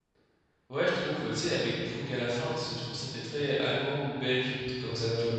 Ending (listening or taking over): taking over